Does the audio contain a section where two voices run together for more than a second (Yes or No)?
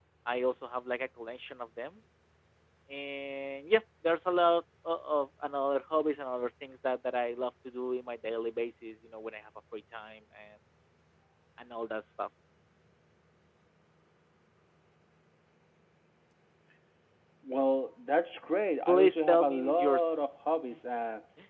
Yes